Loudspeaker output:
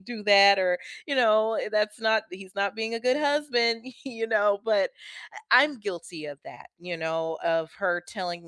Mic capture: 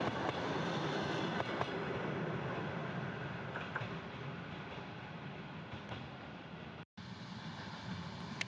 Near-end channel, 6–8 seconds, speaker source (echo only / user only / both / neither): neither